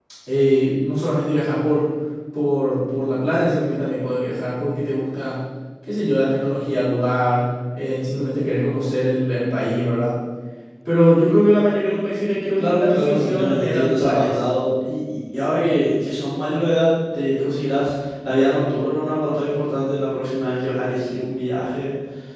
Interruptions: present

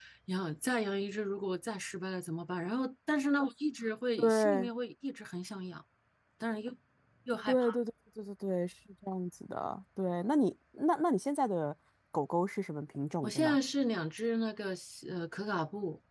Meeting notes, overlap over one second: none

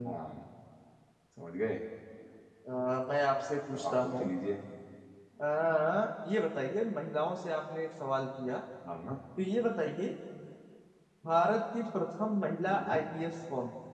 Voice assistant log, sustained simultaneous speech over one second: none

